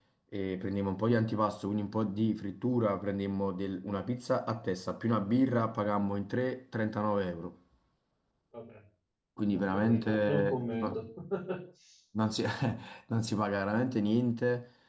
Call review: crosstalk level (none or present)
present